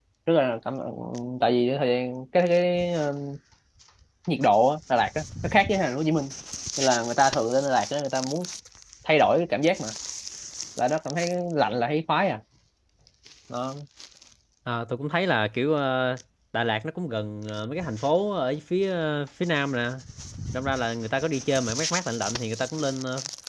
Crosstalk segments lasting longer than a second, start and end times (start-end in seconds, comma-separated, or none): none